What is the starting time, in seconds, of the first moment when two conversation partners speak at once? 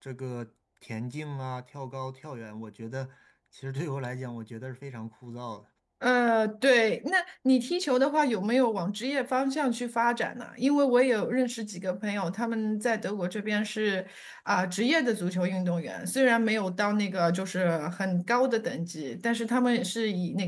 none

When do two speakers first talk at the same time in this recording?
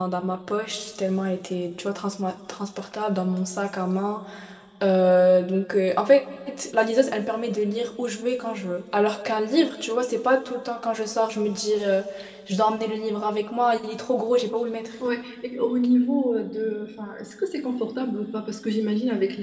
none

